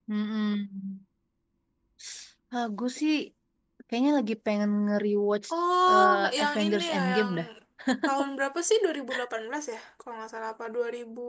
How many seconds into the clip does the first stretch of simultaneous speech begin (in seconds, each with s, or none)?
5.9 s